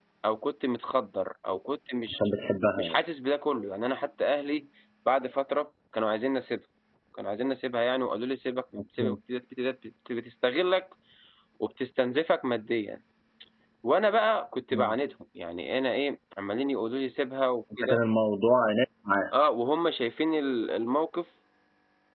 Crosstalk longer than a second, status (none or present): none